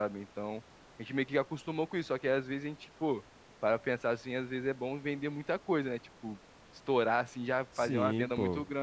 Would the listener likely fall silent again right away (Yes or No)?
Yes